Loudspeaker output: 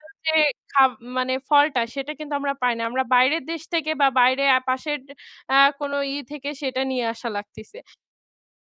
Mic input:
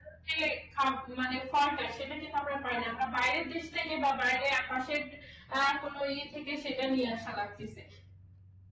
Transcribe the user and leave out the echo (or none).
none